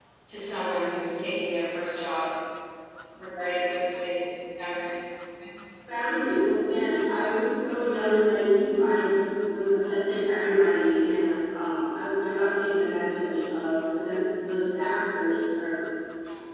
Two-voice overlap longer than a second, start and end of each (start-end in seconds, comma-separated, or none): none